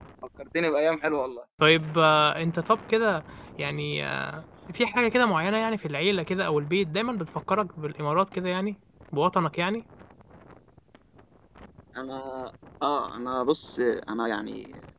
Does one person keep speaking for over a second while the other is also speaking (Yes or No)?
No